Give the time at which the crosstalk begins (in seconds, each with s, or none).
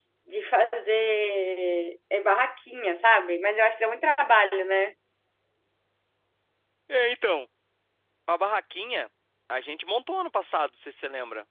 none